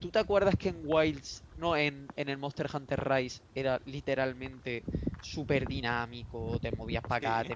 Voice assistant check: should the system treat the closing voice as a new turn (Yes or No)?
No